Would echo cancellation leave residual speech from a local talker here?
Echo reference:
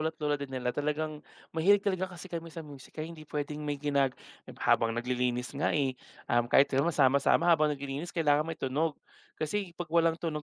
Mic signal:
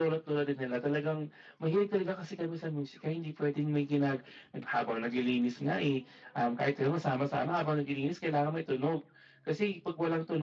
No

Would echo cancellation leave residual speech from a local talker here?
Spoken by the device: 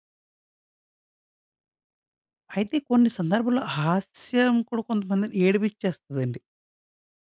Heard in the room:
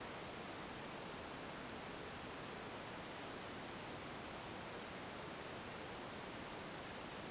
No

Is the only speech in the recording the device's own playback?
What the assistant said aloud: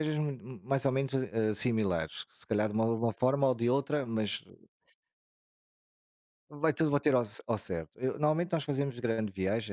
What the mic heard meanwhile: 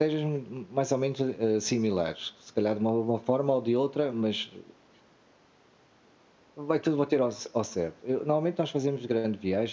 Yes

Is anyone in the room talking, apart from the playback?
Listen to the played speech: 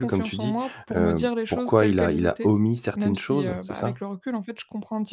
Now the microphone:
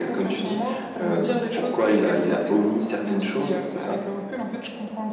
No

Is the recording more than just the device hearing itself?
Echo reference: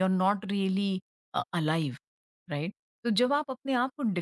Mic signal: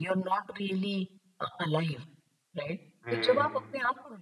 Yes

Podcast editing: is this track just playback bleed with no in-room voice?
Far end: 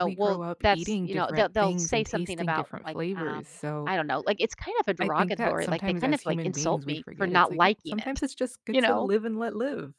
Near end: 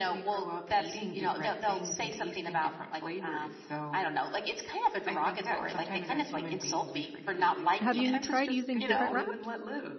No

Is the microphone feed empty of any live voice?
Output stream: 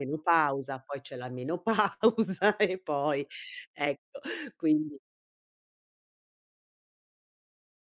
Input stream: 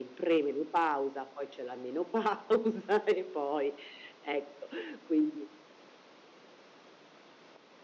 Yes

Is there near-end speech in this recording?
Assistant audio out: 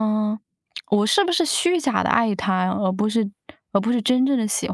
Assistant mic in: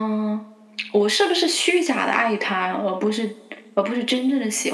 No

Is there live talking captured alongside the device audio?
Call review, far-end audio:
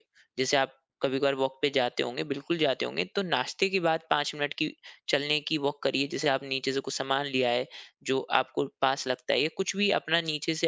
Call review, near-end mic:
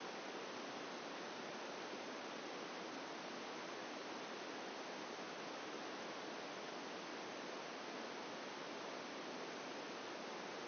No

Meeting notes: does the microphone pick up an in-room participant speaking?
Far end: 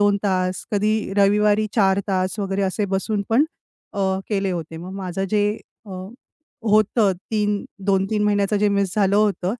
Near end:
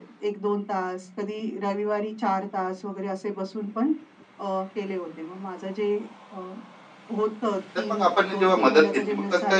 Yes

